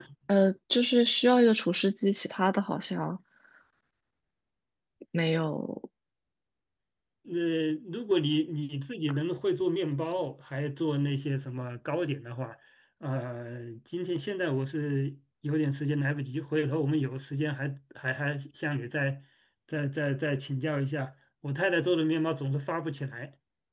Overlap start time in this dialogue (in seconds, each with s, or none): none